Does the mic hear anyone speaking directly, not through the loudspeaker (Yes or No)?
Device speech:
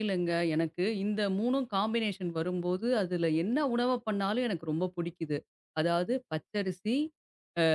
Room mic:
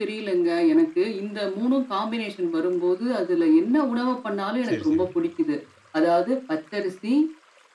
Yes